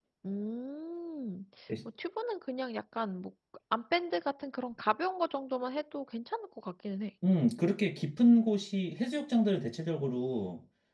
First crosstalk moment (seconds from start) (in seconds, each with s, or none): none